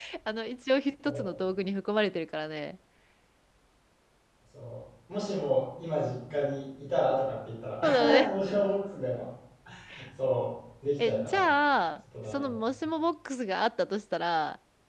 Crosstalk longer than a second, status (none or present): none